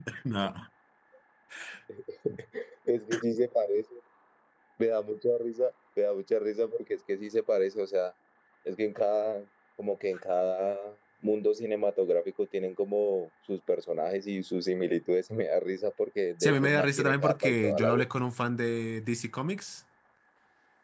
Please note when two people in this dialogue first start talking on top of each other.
16.4 s

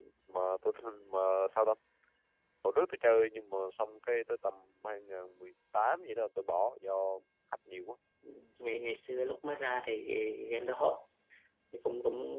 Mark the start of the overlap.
none

